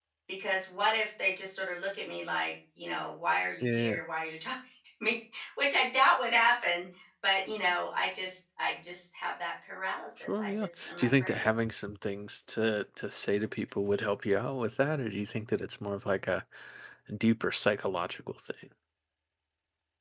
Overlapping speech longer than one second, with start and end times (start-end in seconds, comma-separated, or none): 10.2-11.5